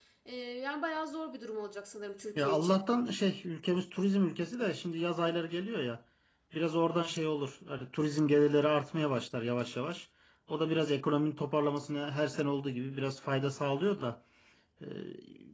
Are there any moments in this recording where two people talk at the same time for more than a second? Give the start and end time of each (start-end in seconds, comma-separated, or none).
none